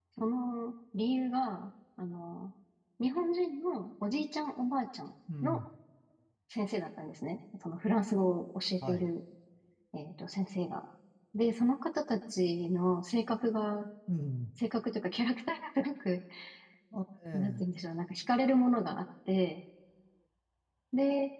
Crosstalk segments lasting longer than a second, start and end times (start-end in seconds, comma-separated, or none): none